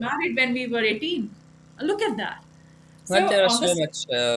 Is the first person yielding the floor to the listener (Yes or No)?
Yes